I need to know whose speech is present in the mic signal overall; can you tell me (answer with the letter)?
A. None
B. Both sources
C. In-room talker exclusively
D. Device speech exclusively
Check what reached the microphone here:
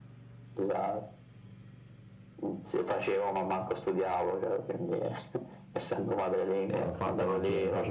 B